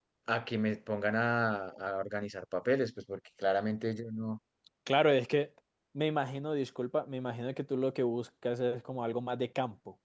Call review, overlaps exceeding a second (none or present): none